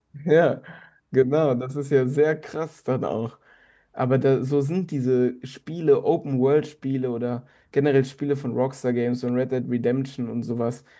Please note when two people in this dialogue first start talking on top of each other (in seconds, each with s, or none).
none